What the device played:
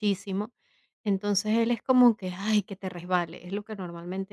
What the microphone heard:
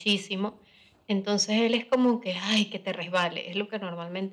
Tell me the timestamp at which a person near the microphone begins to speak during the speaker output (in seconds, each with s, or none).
none